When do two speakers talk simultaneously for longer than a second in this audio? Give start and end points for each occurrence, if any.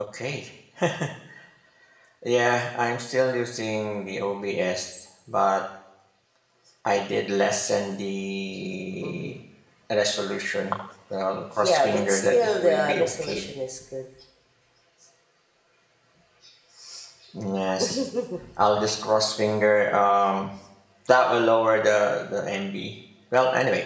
11.6-13.4

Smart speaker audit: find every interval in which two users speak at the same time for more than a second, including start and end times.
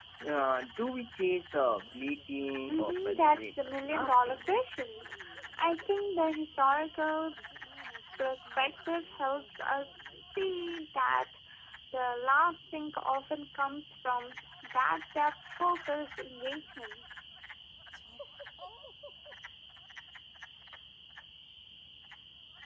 2.7-4.4

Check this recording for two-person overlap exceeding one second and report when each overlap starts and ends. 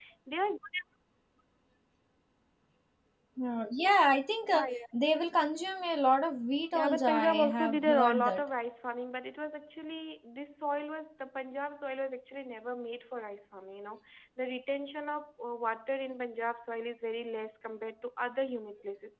6.7-8.4

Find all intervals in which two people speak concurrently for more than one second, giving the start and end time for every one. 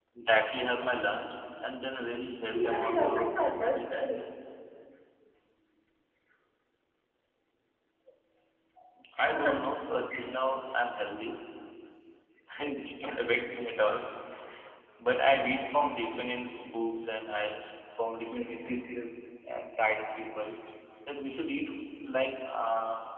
2.5-4.2

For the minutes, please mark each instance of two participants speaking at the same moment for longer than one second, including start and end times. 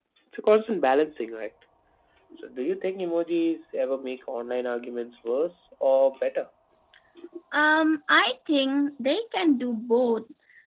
none

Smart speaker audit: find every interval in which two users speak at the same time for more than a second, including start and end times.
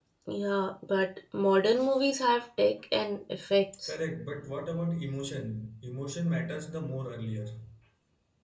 none

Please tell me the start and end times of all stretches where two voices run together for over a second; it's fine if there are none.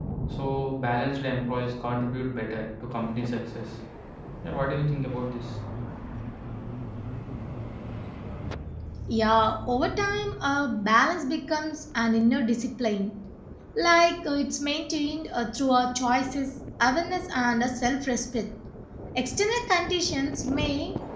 none

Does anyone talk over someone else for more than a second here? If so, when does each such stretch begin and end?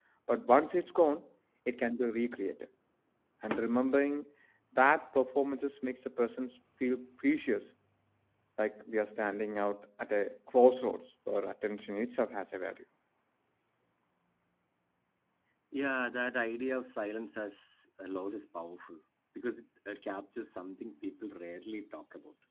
none

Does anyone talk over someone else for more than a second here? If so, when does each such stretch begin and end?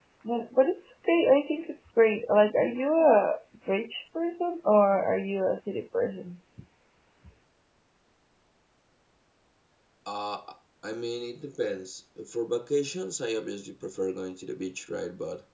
none

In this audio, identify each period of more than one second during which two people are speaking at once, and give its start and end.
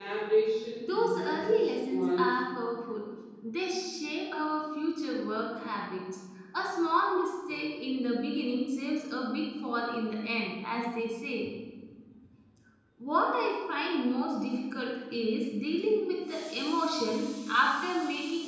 0.8-2.4

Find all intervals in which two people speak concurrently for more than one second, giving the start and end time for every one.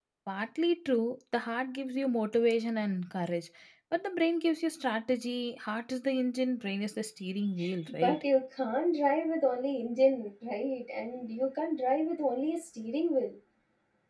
none

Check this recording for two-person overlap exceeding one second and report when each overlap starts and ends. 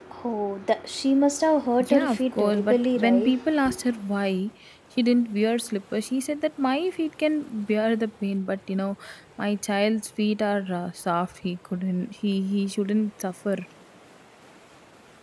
1.8-3.3

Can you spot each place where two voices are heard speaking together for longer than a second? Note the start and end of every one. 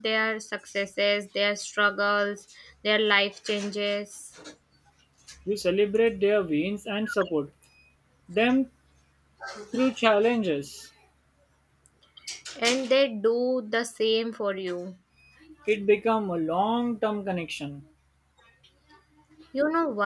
none

